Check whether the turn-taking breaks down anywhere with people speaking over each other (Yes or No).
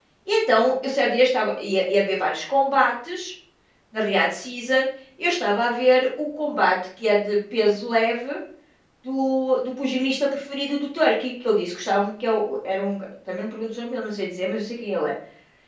No